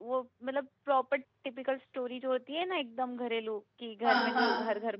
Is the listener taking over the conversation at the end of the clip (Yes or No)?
No